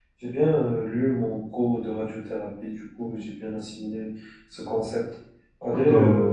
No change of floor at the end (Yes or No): No